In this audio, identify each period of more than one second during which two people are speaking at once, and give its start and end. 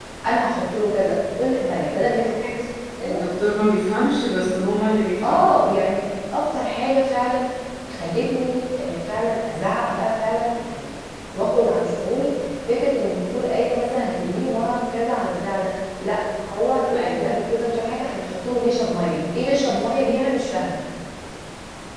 none

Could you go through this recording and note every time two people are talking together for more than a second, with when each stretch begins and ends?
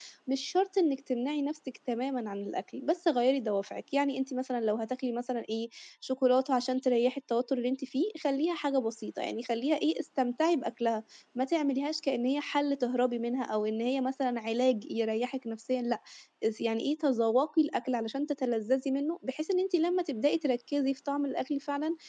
none

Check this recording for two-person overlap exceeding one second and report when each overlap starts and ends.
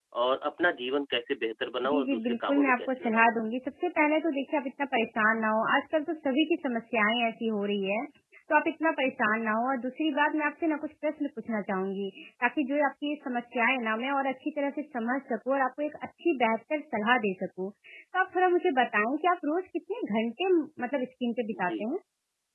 1.9-3.3

